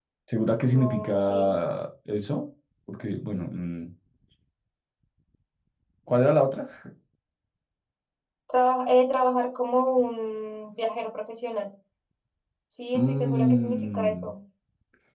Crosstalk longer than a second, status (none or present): present